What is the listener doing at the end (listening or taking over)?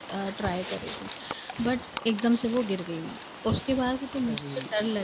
listening